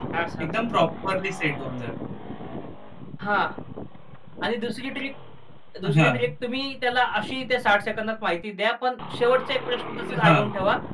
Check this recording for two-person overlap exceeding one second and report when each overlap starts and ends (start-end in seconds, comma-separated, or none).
none